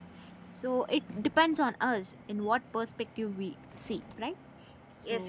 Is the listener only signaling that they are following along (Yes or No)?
No